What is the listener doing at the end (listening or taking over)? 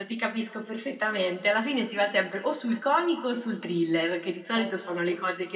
listening